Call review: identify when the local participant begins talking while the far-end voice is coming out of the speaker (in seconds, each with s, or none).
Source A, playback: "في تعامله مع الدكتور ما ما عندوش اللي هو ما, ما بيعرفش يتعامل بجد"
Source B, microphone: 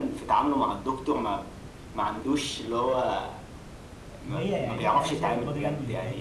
4.2 s